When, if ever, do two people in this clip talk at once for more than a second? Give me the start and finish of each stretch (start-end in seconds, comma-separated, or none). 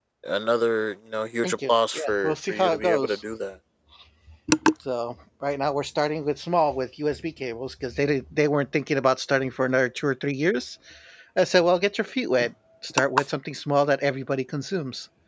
1.4-3.2